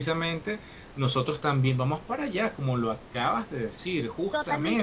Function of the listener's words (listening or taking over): taking over